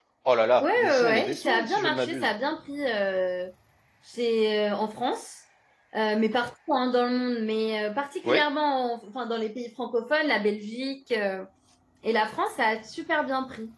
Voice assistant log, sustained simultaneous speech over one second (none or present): present